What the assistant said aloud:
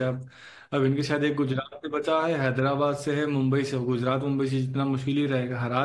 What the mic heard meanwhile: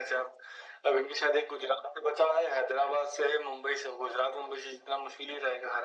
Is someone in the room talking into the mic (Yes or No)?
No